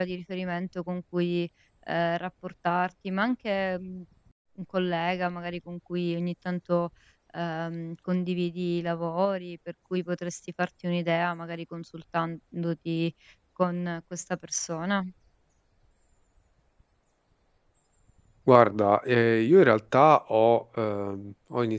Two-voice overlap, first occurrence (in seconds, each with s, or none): none